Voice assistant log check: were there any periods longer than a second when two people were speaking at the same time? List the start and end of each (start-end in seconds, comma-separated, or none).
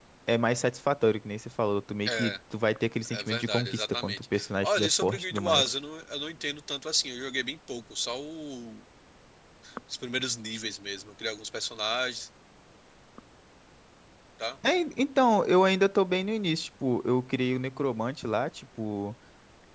3.1-5.8